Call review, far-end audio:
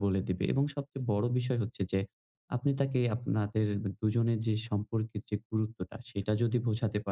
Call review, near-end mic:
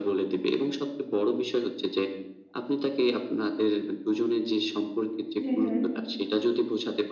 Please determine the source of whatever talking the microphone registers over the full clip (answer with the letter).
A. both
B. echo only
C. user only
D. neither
A